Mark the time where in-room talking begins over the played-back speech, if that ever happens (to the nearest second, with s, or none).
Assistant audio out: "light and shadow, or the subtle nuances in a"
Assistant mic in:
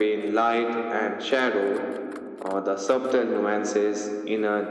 none